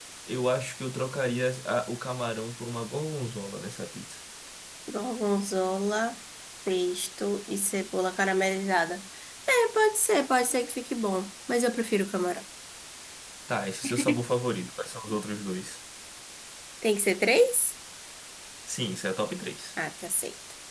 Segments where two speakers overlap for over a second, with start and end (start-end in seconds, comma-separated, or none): none